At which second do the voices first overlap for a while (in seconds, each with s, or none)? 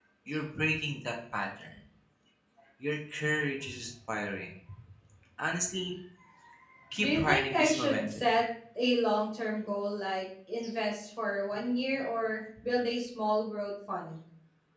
7.0 s